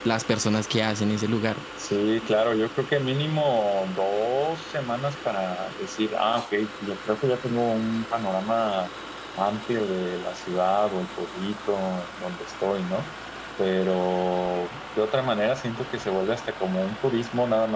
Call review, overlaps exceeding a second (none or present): none